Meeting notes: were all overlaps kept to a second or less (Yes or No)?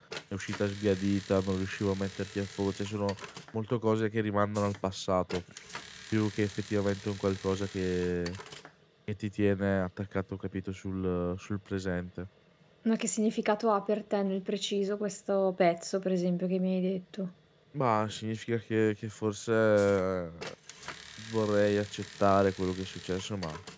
Yes